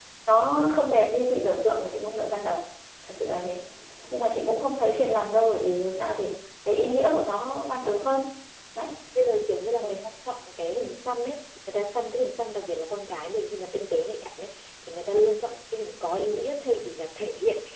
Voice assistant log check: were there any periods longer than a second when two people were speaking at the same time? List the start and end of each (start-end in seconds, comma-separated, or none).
none